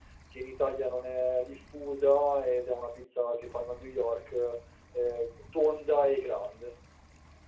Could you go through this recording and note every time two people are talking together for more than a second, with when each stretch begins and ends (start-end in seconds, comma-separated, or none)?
none